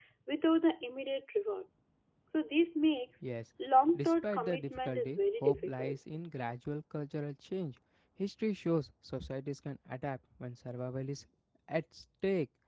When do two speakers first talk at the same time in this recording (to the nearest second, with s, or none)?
4 s